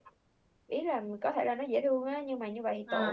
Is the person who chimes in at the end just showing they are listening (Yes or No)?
Yes